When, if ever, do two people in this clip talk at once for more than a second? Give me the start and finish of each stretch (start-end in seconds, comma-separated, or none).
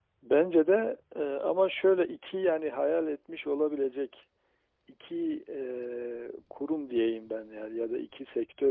none